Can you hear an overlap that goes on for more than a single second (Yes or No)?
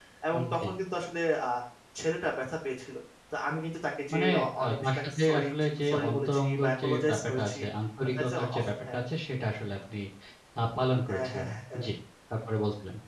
Yes